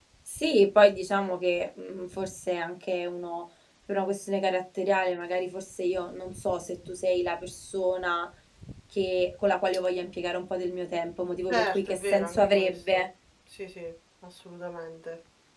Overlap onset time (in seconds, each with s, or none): 11.5 s